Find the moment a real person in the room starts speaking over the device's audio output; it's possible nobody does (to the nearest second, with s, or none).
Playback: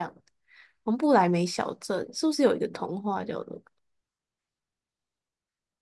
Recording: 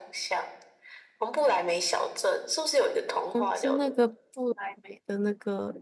3 s